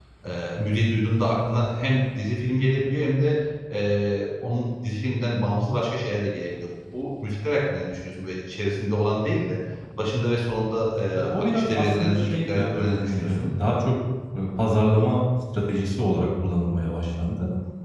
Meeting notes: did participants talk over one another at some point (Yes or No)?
Yes